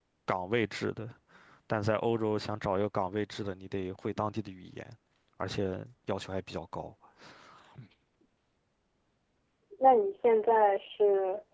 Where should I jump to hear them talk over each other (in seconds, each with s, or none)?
none